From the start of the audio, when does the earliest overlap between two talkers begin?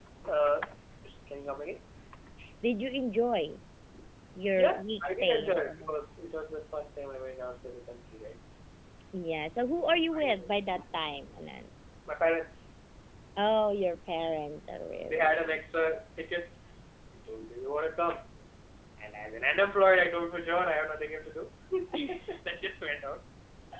4.6 s

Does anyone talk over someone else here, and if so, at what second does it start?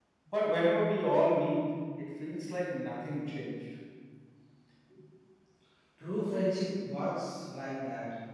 none

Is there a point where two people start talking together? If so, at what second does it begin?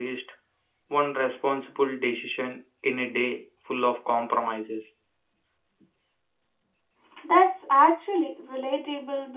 none

